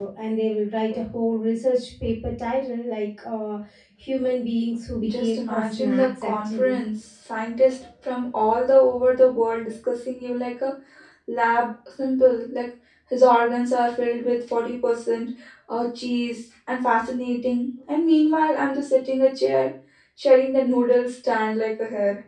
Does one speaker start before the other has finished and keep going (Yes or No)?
Yes